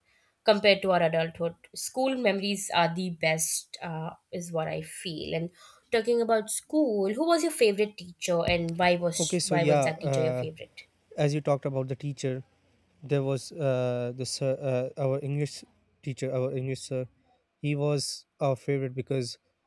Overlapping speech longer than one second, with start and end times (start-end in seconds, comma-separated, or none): 9.2-10.4